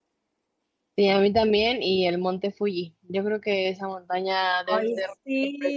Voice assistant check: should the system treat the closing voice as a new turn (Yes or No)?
Yes